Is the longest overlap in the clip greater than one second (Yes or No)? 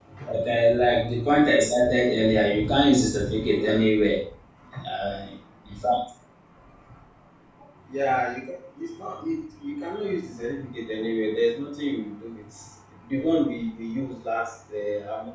No